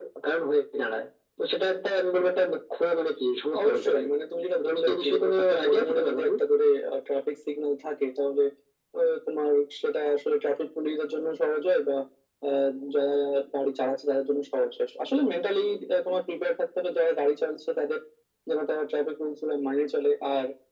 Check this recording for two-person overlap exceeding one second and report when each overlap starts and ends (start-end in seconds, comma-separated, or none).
4.6-6.3